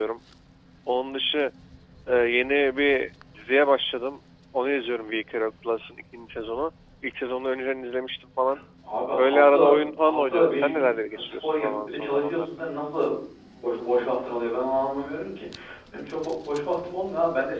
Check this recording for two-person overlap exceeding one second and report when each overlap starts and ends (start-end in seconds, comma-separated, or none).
9.2-12.4